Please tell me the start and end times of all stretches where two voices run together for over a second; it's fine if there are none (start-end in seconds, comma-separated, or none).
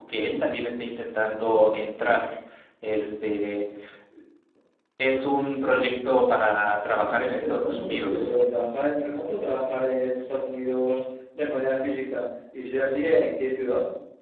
7.0-8.3